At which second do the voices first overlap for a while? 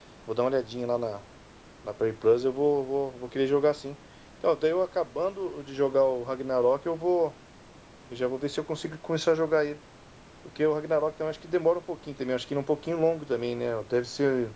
none

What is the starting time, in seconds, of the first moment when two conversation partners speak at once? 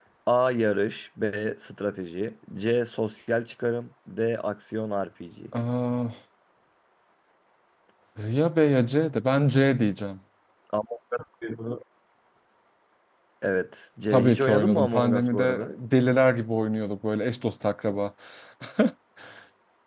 14 s

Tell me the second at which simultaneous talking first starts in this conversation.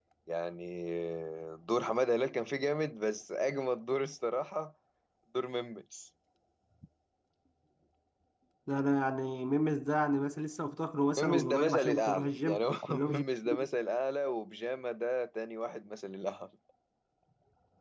11 s

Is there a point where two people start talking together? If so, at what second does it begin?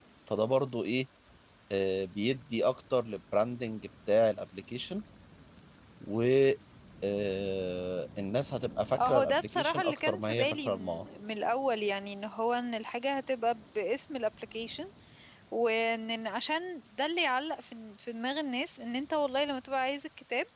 9 s

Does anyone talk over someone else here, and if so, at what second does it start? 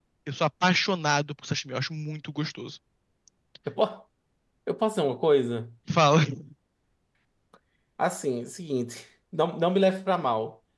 none

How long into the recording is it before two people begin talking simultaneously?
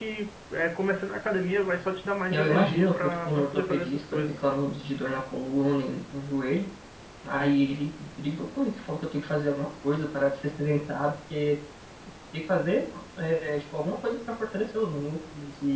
2 s

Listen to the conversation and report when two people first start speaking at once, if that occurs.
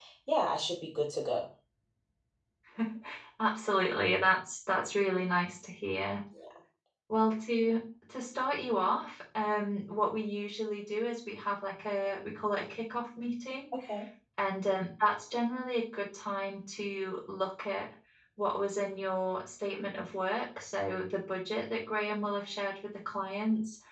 none

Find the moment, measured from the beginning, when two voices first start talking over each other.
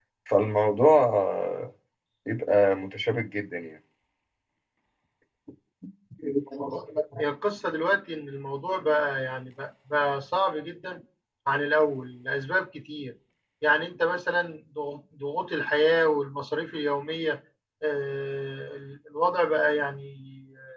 none

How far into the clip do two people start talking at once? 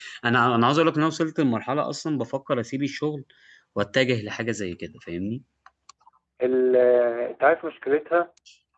none

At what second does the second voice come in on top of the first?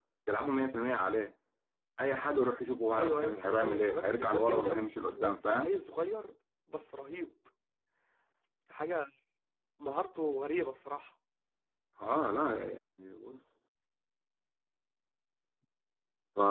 3 s

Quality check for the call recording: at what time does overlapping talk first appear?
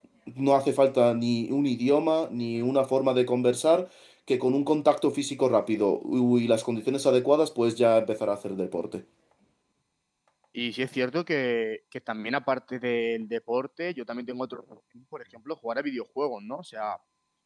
none

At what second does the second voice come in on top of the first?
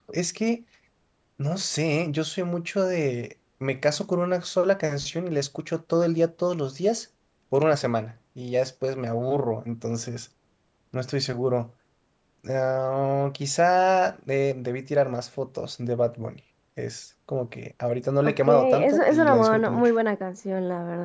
18 s

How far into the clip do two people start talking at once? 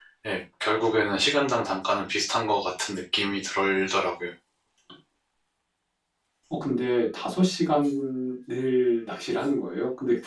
none

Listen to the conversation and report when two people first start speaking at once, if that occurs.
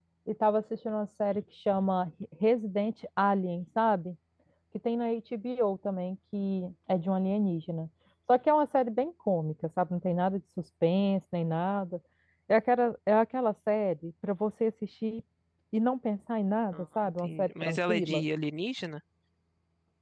17 s

